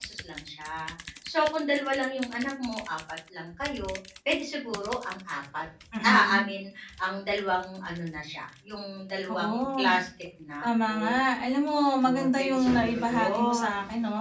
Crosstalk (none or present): present